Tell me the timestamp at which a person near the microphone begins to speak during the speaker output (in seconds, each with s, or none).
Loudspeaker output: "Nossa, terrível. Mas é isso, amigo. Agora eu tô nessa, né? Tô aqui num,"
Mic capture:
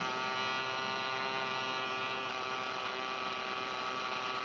none